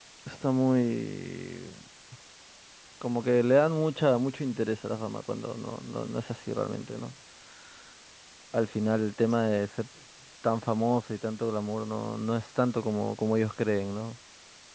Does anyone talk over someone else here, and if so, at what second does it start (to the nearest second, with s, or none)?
none